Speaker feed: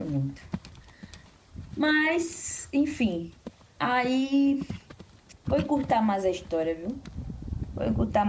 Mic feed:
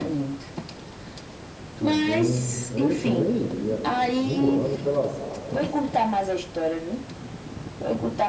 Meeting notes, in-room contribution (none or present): present